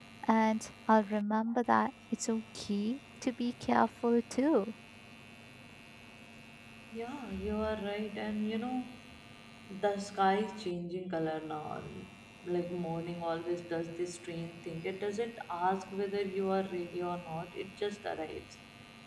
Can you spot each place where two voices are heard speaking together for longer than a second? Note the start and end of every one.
none

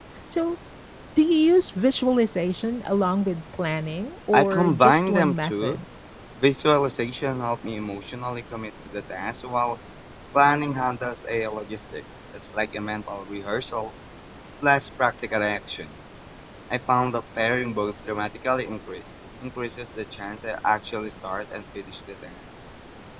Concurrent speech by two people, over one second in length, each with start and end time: 4.3-5.8

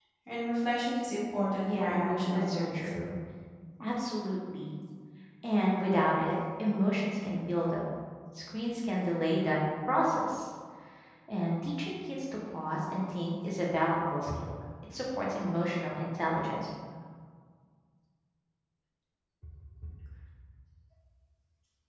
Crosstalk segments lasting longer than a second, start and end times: 1.7-2.9

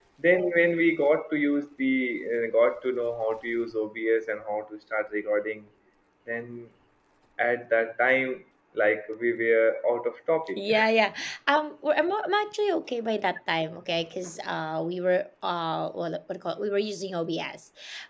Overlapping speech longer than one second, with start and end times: none

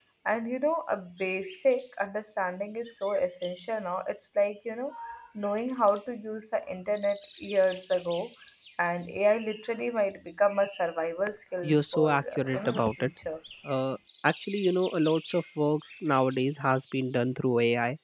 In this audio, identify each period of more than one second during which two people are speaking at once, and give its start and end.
11.6-13.1

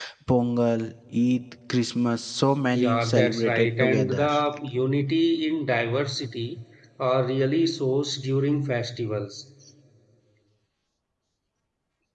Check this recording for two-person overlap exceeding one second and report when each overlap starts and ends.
2.7-4.3

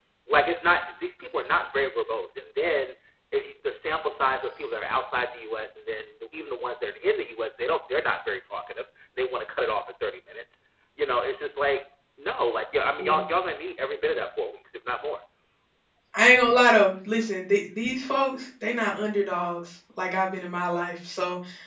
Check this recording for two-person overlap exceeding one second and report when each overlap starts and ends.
none

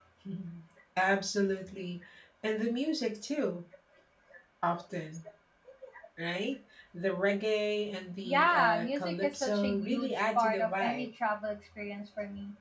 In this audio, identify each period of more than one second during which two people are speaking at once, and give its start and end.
8.2-11.1

